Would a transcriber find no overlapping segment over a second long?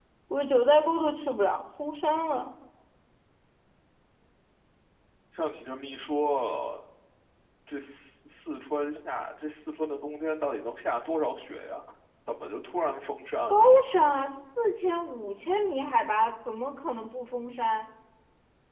Yes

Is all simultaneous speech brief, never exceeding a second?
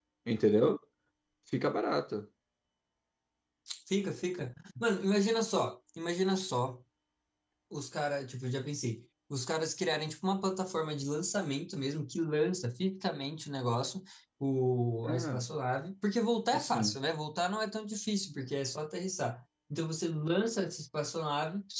Yes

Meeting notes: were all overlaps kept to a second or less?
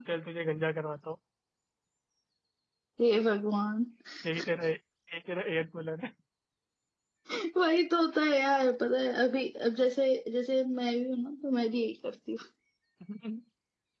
Yes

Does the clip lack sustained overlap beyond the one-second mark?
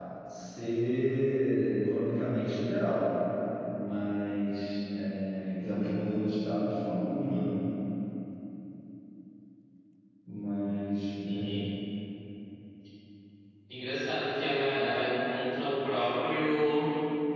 Yes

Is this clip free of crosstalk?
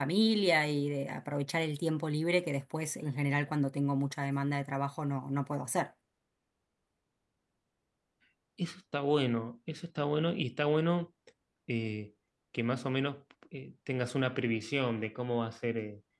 Yes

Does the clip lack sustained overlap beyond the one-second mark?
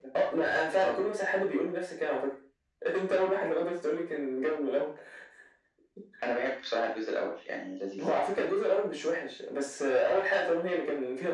Yes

